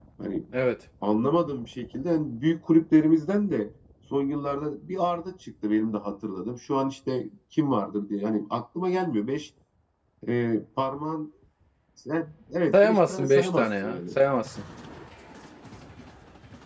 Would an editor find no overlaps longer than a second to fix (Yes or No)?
No